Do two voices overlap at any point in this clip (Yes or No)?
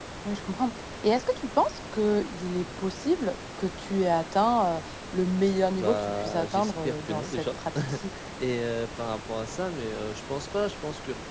Yes